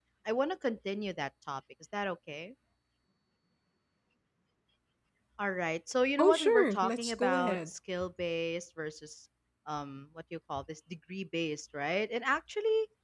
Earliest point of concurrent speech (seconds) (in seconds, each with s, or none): 6.2 s